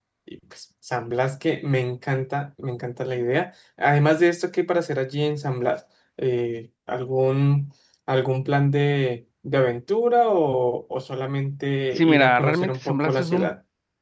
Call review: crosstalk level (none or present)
present